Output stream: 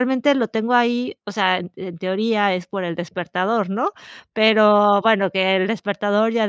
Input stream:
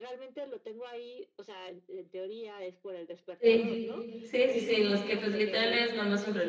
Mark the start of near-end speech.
3 s

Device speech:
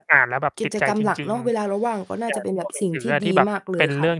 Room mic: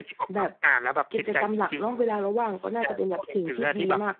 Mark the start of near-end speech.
none

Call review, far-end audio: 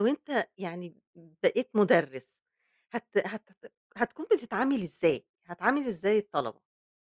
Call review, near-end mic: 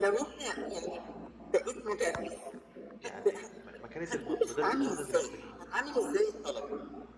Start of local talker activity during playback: 3 s

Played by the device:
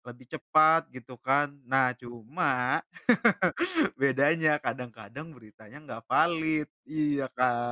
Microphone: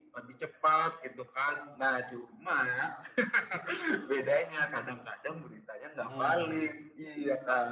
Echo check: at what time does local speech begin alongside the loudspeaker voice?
6 s

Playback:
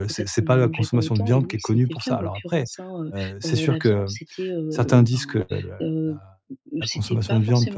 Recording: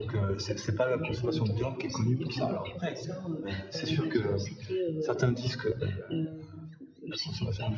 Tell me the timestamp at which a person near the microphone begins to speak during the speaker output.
none

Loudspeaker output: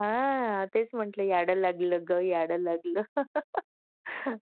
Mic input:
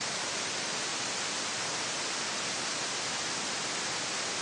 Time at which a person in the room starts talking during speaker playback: none

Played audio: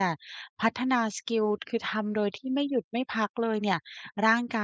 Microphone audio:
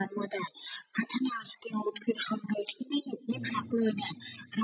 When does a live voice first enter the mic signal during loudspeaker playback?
3 s

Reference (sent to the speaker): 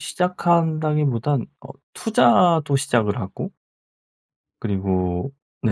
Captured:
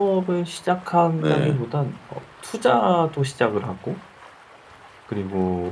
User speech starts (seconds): 1 s

